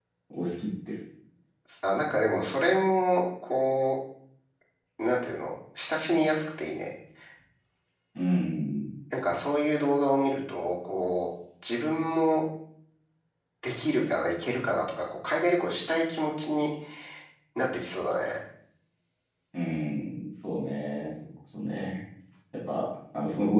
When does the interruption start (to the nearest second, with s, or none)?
none